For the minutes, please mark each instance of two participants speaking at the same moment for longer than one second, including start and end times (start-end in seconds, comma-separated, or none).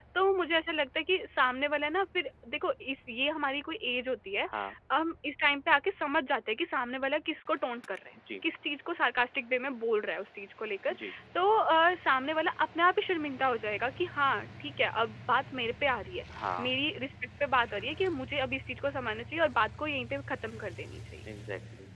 none